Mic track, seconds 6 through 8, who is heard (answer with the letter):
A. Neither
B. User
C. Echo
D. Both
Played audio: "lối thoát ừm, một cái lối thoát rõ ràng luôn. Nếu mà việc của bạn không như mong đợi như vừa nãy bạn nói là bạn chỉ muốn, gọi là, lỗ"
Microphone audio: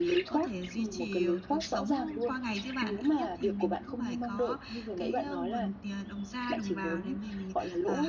D